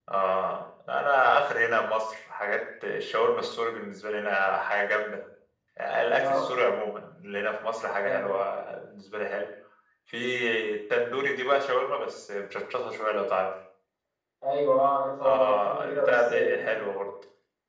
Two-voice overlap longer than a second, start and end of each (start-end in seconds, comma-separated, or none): 15.2-16.8